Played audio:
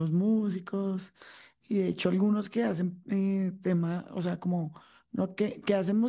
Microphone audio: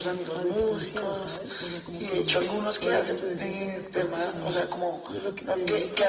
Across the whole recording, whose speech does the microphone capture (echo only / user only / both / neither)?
both